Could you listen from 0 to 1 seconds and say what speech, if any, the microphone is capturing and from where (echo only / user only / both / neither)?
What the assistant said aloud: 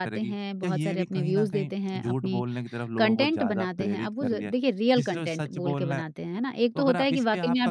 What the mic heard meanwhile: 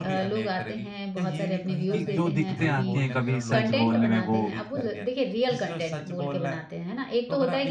echo only